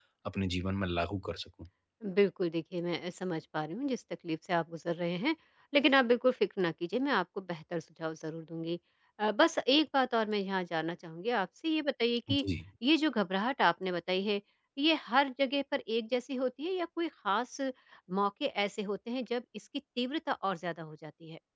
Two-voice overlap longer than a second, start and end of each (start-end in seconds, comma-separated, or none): none